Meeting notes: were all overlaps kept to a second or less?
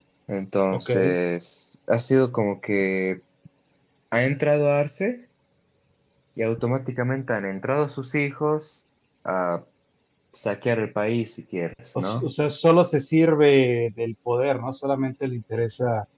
Yes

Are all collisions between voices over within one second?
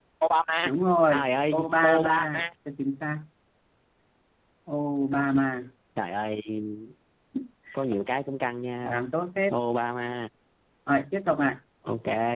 No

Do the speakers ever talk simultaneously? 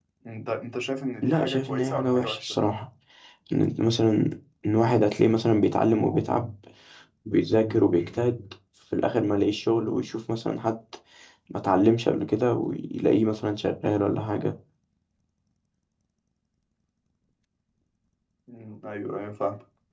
Yes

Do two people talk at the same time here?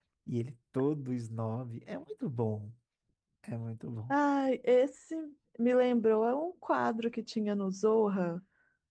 No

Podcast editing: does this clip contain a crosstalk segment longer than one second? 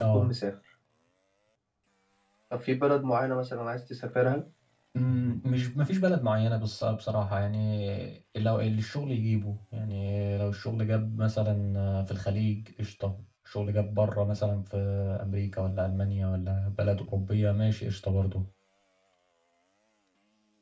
No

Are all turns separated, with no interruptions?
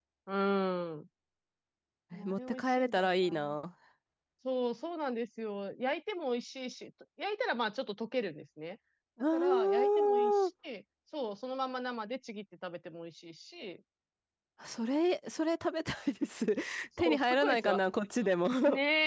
No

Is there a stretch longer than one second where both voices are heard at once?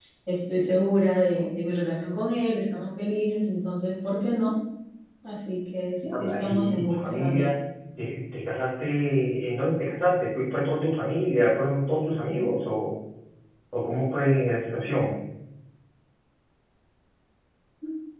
Yes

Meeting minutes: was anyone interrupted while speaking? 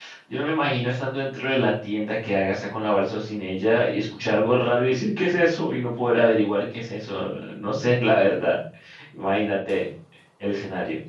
No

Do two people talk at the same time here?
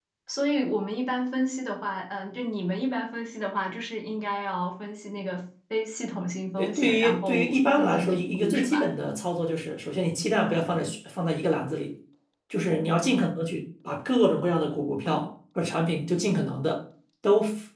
Yes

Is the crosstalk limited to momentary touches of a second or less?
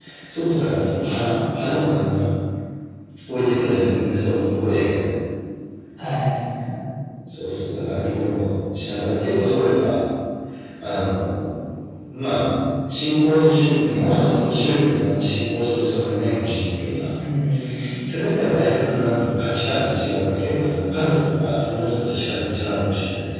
Yes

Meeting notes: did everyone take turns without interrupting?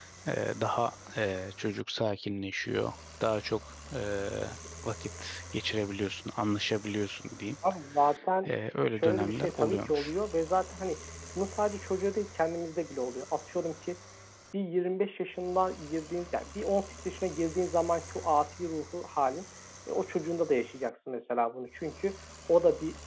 No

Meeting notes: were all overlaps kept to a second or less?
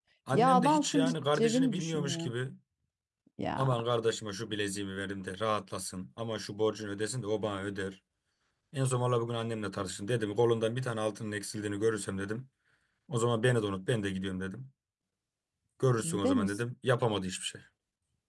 No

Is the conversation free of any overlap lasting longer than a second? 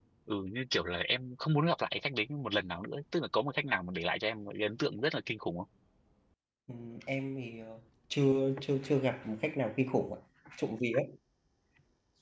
Yes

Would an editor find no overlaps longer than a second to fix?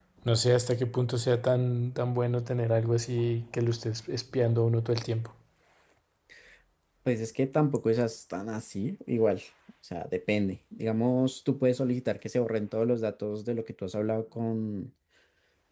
Yes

